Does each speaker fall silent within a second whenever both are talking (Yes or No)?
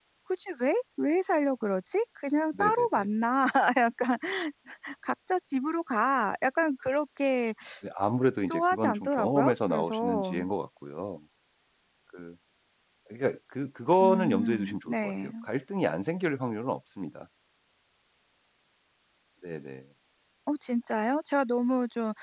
No